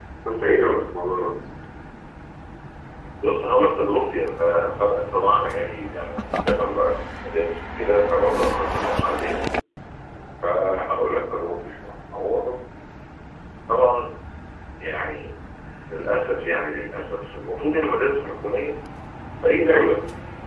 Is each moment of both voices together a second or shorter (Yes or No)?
Yes